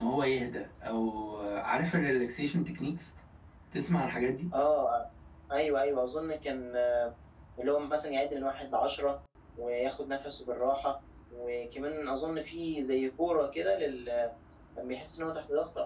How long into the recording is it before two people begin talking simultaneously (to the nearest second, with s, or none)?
none